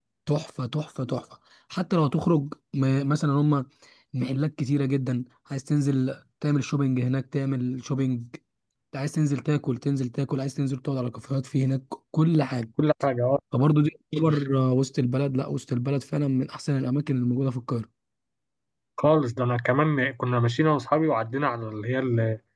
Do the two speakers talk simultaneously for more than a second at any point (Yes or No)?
No